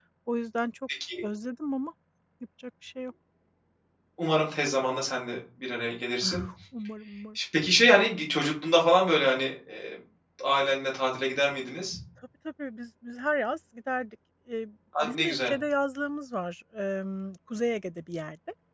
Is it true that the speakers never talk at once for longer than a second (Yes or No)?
Yes